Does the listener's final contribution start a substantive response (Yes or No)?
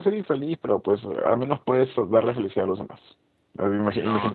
No